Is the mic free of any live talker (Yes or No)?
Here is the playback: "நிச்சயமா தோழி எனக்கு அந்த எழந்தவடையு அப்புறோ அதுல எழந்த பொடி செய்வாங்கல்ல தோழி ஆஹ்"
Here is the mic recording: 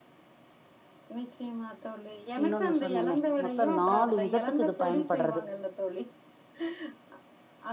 No